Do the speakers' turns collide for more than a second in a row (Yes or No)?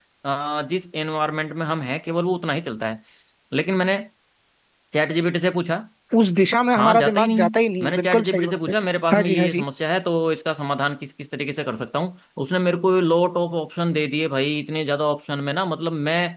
Yes